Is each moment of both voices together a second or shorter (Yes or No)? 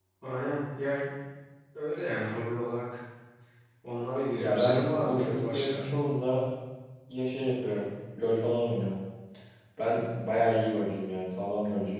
No